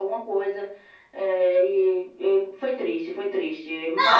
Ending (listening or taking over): taking over